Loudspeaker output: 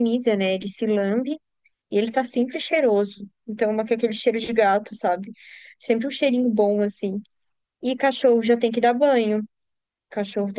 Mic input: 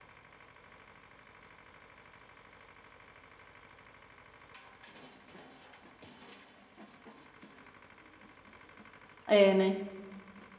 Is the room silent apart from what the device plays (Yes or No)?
No